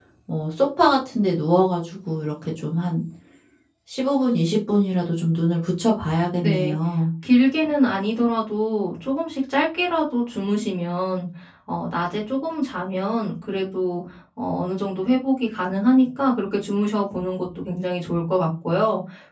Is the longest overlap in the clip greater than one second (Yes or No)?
No